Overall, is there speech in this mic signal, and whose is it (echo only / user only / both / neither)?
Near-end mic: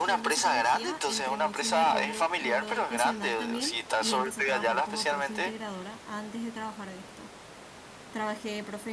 both